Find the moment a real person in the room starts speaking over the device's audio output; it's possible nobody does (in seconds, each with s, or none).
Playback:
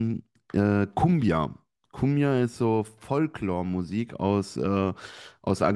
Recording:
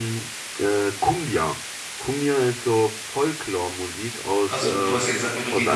4.5 s